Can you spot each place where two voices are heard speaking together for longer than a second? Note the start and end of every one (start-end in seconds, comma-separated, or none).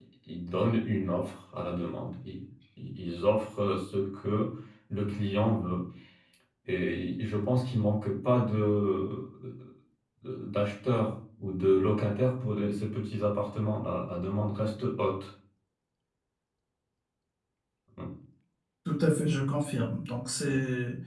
none